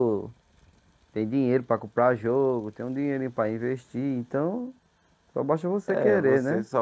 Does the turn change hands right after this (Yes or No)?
Yes